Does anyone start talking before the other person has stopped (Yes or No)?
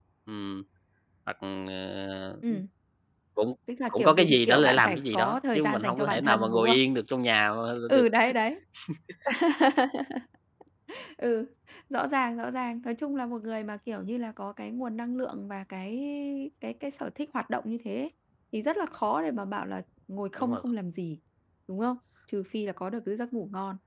Yes